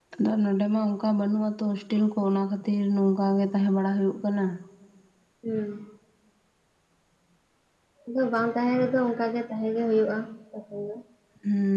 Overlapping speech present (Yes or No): No